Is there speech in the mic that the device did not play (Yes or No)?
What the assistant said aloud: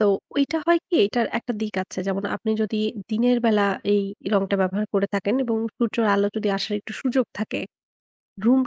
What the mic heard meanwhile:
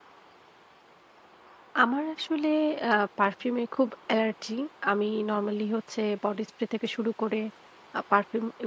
Yes